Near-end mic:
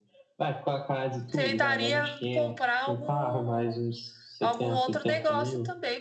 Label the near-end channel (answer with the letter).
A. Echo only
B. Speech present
B